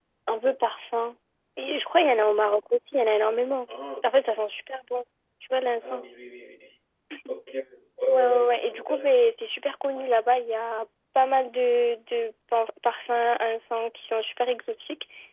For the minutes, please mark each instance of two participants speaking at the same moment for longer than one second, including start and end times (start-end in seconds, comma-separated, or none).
8.1-9.3